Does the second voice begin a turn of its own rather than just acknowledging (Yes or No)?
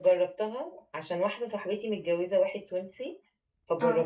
No